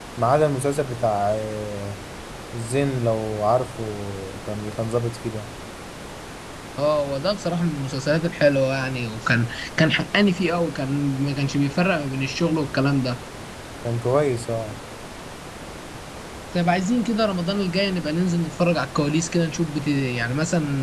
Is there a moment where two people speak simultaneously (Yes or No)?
No